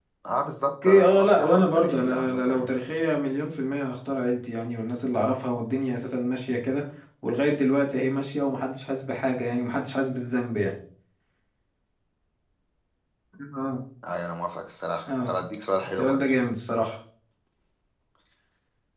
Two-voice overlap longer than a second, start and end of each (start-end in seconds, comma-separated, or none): 0.8-2.7